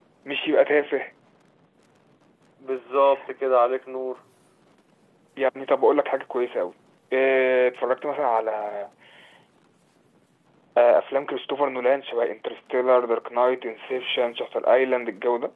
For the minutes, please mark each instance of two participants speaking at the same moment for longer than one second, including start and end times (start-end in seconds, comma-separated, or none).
none